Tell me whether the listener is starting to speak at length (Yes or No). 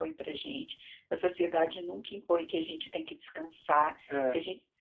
No